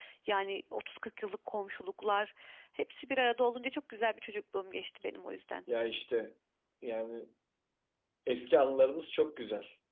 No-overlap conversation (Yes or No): Yes